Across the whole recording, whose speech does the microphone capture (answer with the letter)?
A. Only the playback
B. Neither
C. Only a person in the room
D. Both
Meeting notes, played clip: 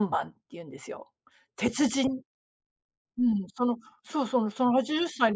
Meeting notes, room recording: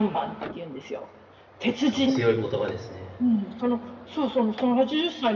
D